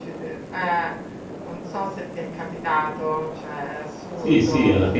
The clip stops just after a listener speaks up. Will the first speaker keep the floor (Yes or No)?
No